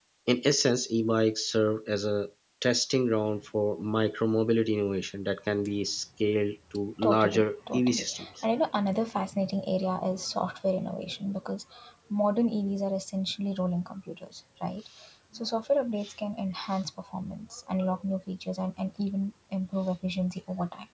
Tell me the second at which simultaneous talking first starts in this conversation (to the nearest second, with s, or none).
7 s